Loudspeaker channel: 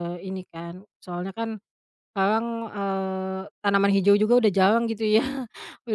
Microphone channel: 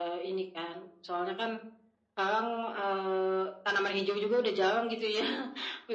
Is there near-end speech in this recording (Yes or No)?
No